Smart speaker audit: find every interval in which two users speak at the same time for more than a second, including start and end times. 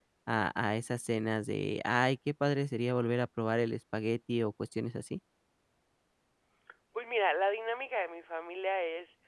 none

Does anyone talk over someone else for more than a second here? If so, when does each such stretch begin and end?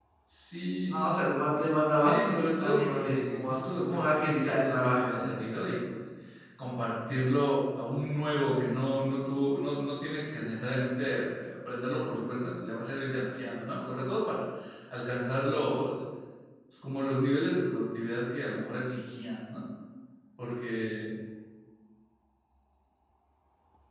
2.0-5.3

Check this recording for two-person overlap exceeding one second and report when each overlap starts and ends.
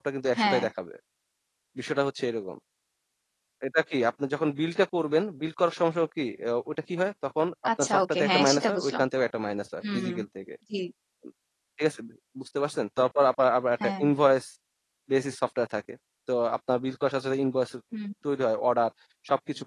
7.8-9.0

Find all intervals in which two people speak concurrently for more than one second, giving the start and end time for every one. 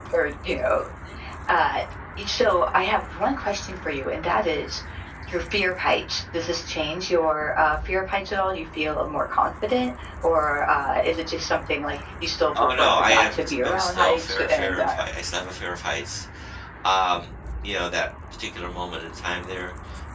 12.5-14.9

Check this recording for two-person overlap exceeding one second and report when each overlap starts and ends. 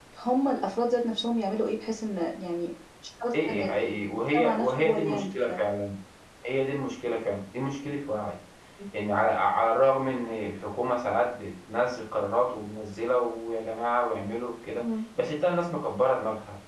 4.3-5.6

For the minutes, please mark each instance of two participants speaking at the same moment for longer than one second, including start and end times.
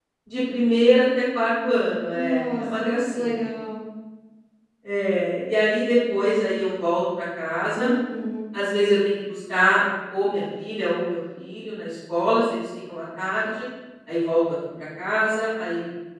2.1-3.4

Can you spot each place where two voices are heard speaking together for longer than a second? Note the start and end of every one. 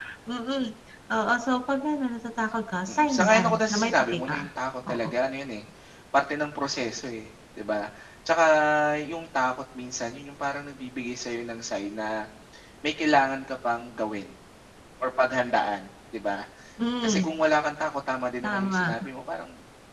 2.9-4.4

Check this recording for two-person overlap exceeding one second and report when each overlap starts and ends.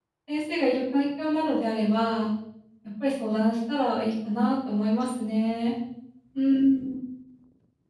none

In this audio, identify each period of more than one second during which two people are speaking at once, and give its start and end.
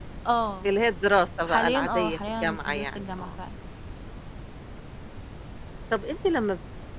1.4-3.3

